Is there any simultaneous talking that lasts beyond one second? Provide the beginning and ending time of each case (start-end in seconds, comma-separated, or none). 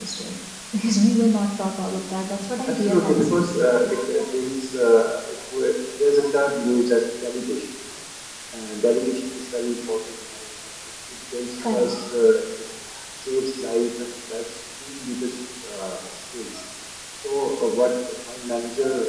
2.7-3.9